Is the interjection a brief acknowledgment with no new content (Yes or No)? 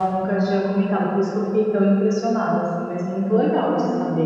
No